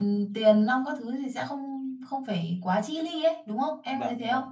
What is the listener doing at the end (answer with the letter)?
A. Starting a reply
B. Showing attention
A